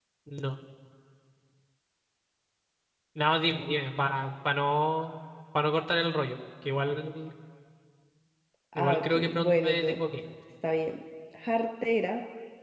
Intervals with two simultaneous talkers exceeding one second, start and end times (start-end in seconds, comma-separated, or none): 8.8-10.0